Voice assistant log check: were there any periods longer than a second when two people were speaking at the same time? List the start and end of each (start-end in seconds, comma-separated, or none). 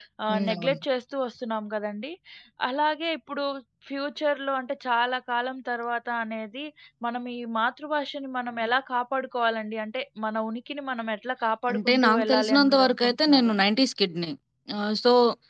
11.7-13.5